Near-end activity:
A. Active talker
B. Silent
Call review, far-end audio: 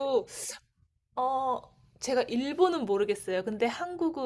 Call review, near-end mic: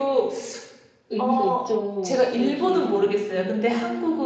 A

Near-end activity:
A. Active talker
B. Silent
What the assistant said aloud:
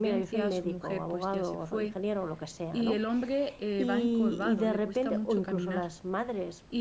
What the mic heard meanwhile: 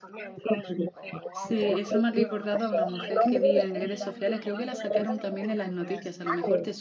A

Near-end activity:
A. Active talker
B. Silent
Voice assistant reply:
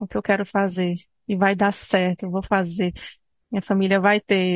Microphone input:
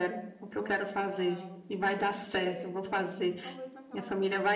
A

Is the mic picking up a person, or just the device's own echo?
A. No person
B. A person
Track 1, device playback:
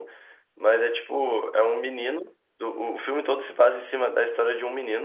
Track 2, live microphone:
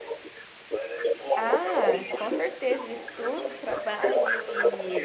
B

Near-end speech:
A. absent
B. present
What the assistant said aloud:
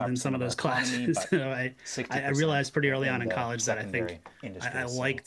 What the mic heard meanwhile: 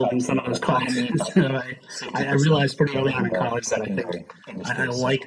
A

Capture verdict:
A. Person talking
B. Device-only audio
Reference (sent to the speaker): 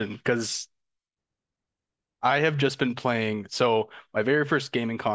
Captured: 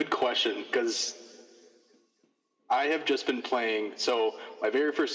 B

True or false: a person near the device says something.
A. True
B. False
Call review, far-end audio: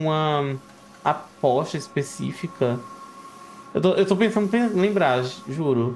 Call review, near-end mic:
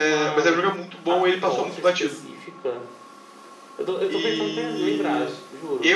A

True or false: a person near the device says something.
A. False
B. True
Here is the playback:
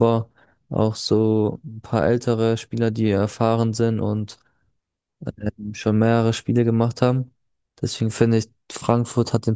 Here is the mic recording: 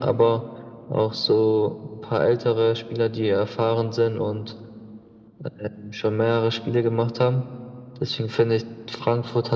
A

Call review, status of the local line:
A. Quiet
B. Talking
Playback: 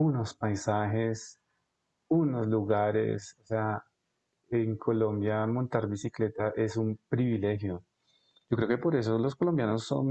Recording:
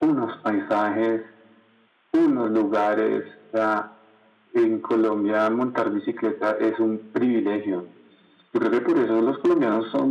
A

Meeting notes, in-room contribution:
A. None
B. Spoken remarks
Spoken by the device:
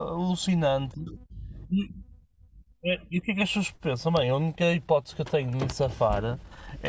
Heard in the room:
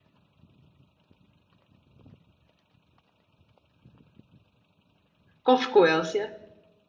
B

